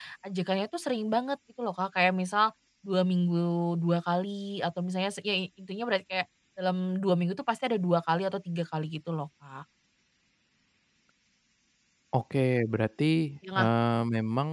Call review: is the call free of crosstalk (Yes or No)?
Yes